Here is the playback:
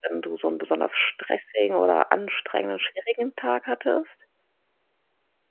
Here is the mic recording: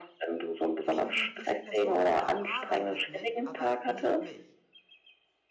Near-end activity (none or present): present